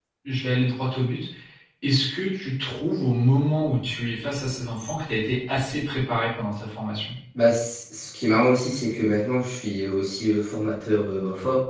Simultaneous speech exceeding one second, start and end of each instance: none

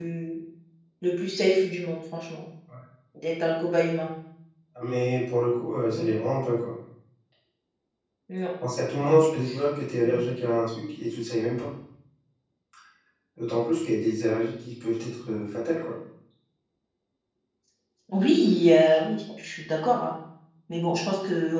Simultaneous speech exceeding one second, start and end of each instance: none

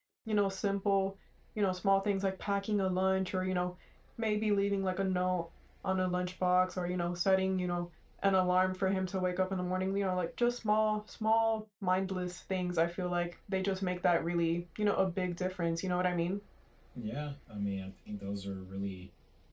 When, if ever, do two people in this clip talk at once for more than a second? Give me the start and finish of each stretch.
none

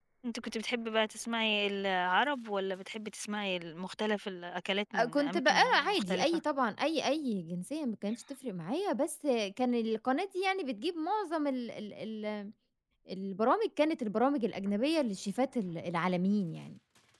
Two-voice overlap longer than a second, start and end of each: 4.9-6.4

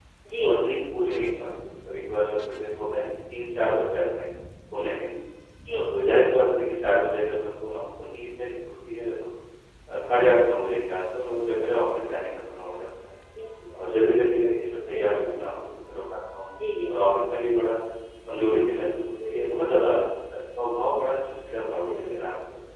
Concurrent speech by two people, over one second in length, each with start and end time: none

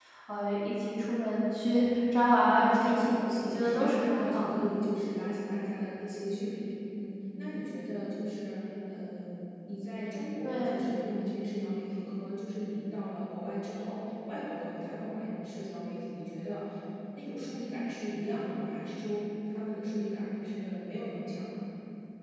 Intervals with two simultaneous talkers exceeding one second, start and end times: 2.4-4.7

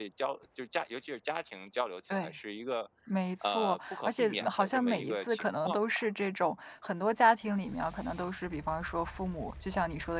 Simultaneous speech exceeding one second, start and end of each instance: 3.4-6.1

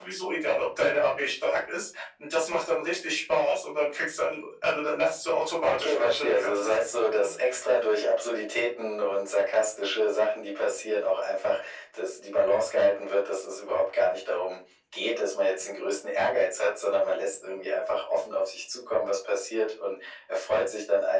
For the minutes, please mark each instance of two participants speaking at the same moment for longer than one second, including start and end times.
5.6-7.3

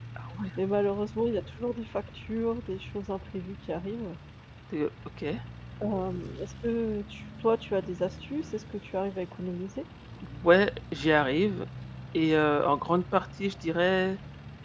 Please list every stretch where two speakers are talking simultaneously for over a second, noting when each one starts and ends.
none

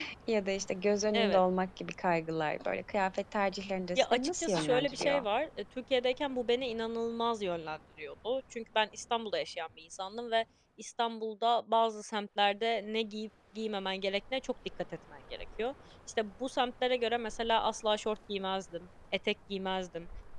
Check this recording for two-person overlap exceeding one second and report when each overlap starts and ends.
4.0-5.2

